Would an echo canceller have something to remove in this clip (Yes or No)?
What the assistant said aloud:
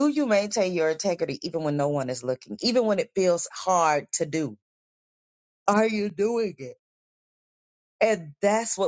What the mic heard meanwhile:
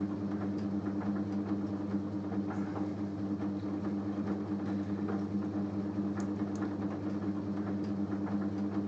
No